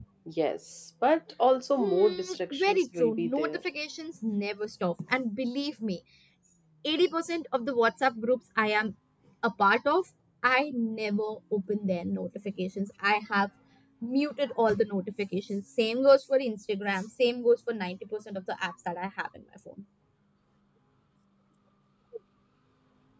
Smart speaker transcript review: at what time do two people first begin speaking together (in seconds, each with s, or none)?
1.8 s